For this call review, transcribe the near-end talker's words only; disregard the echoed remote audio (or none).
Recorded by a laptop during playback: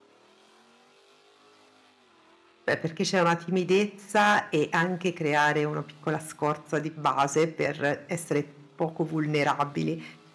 Beh, perché c'è una timidezza e anche creare una piccola scorza di base per essere poco vulnerabili.